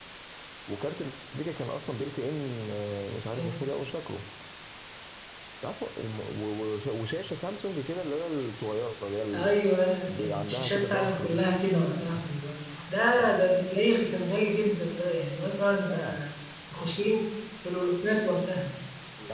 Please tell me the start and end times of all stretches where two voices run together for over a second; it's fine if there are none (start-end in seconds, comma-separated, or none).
10.0-11.4